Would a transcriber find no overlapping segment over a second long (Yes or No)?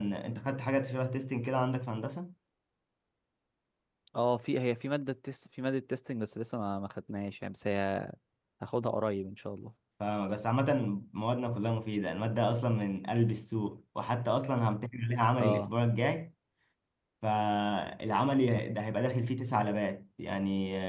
Yes